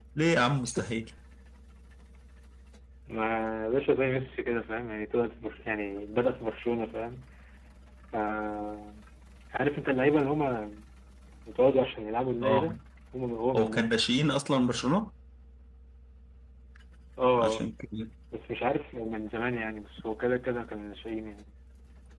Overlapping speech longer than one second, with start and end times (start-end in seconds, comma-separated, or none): none